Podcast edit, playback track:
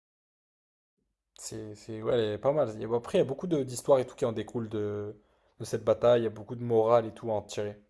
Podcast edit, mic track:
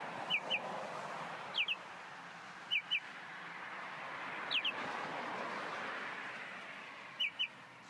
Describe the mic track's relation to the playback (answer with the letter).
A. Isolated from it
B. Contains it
A